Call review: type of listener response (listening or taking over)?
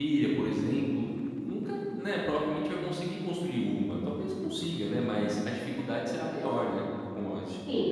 taking over